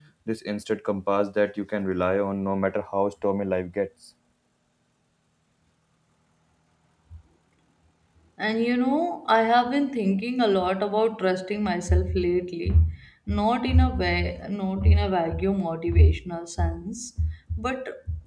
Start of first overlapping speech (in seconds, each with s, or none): none